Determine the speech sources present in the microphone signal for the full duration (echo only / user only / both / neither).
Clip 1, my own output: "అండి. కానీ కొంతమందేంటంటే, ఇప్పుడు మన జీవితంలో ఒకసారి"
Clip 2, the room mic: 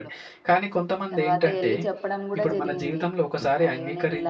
both